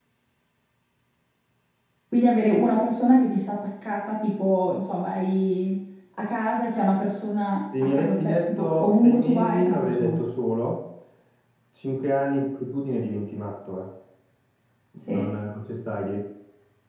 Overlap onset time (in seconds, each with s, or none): 7.7 s